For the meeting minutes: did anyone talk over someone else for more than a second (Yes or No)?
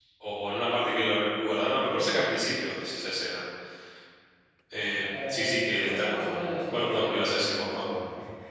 Yes